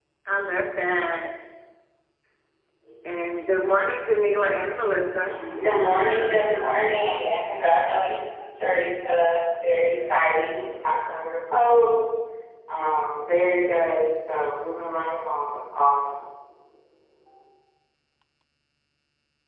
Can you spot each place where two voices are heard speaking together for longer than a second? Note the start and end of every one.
none

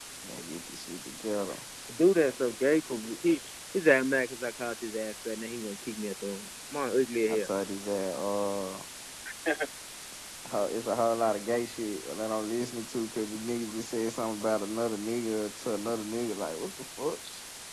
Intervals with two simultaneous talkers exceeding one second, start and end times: none

